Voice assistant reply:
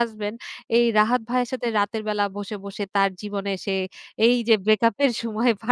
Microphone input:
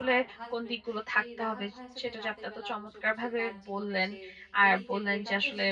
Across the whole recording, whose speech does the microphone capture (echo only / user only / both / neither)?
both